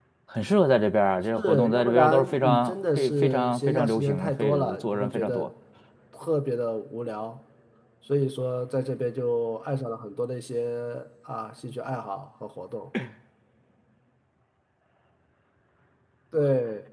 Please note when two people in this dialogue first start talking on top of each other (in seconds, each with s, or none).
1.4 s